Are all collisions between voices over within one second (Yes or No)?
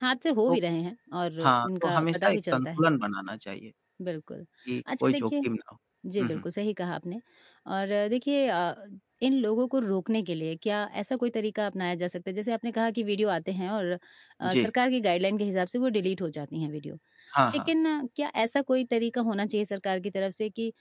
No